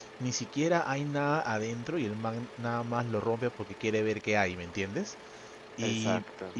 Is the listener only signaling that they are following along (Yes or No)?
Yes